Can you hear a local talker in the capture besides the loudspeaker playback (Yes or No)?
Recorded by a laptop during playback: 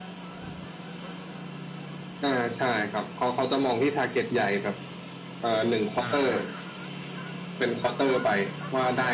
Yes